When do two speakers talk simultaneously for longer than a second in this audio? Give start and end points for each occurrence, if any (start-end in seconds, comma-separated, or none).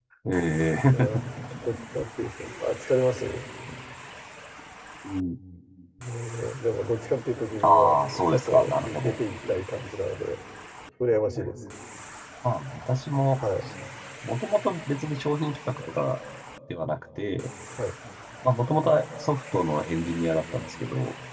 7.6-9.2